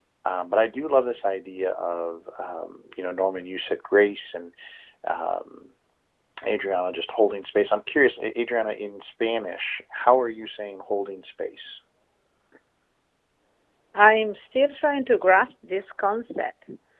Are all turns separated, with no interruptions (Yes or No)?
Yes